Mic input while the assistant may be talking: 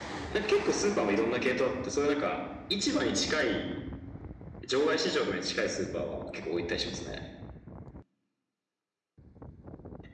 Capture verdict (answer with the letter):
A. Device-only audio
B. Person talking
A